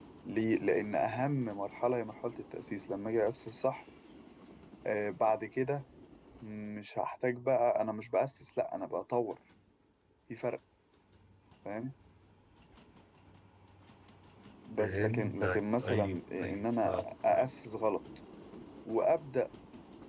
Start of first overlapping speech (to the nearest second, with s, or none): 15 s